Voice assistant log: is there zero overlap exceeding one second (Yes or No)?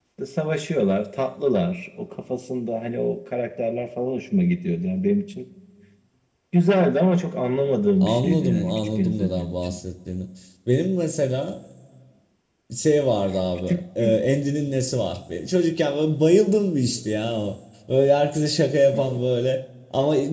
No